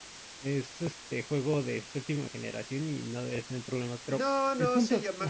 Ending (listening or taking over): taking over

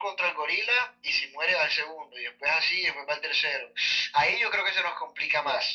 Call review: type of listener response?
taking over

